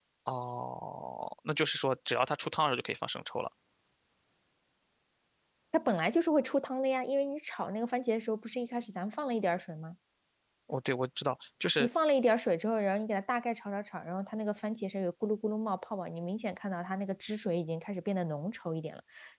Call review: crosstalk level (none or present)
none